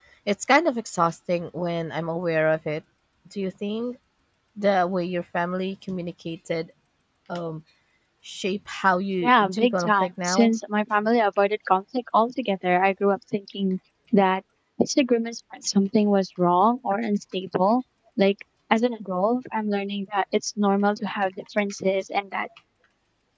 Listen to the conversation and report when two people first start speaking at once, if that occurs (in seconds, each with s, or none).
9.2 s